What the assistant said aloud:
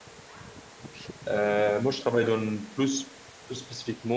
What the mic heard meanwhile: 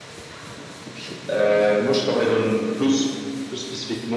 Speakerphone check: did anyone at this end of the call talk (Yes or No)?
No